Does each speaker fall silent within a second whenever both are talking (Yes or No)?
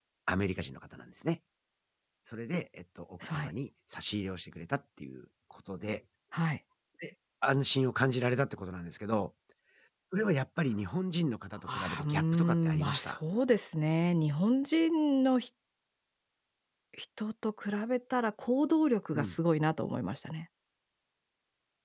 No